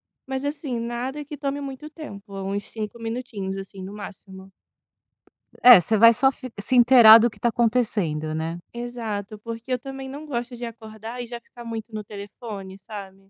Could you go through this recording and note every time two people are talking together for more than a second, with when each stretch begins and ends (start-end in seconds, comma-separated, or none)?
none